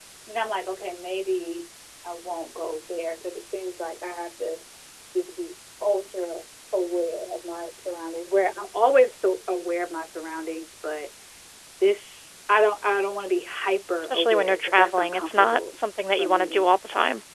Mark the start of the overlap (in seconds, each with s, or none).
14.0 s